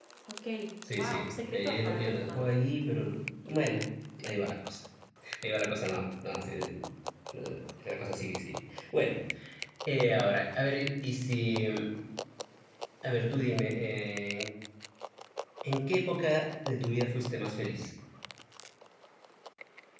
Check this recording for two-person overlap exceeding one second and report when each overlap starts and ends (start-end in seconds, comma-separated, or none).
1.0-2.4